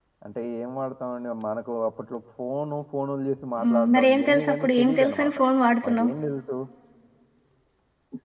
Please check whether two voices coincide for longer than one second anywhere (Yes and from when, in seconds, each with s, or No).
Yes, from 3.6 s